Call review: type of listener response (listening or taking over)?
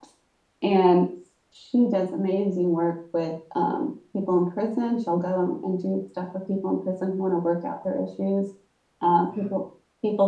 listening